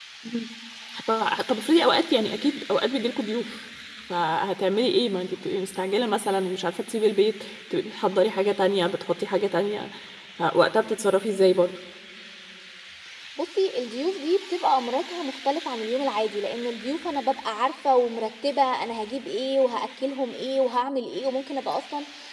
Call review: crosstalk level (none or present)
none